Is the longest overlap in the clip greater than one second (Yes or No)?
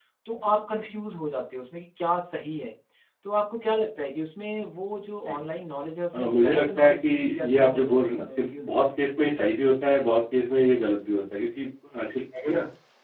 Yes